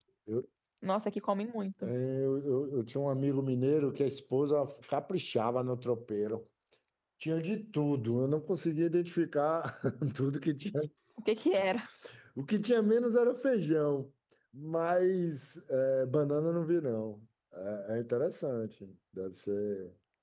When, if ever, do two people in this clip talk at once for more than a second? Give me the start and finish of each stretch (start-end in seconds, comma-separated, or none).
none